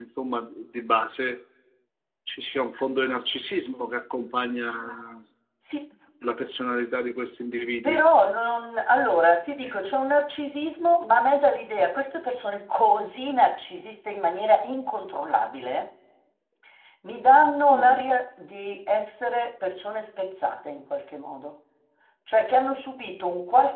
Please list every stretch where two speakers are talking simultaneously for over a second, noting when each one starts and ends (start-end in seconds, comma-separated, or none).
none